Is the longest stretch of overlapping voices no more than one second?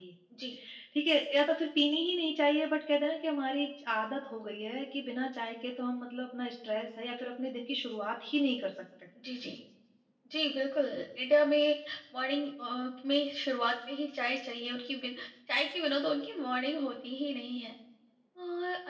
Yes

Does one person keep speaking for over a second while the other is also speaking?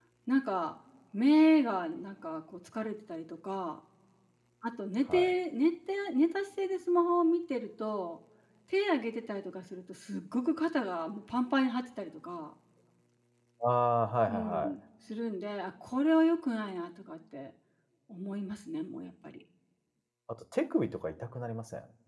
No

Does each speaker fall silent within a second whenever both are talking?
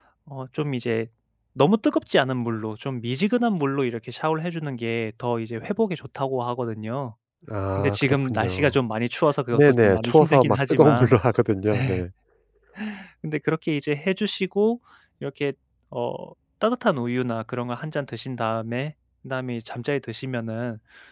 No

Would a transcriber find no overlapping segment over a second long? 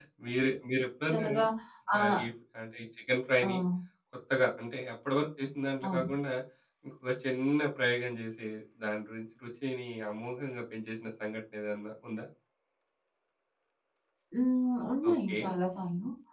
Yes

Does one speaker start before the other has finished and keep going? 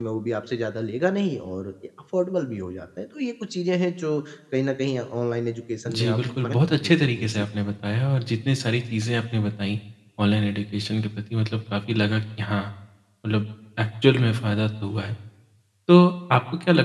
Yes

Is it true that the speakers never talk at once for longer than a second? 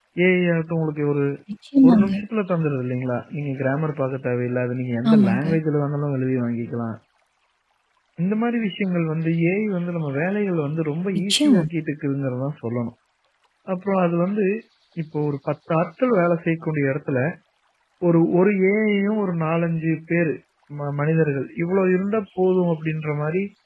Yes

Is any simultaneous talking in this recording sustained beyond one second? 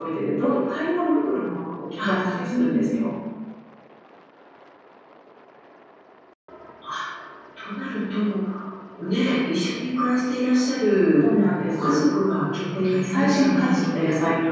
Yes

